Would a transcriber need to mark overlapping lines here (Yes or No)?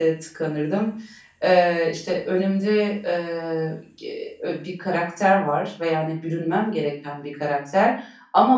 No